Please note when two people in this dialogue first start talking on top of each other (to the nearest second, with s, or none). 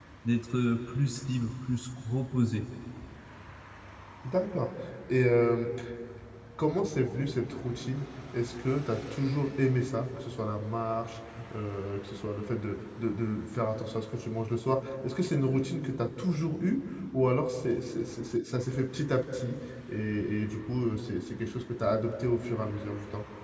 none